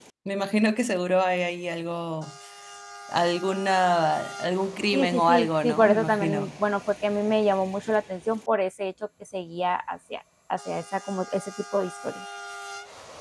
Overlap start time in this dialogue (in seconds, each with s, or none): 4.9 s